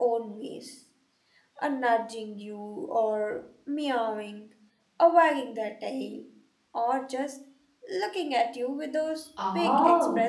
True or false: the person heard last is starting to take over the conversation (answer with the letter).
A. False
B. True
B